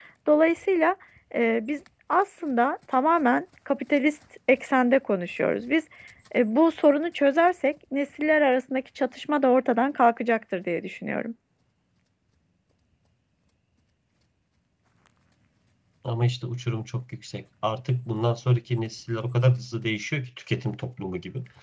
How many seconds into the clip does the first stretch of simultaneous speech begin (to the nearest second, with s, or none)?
none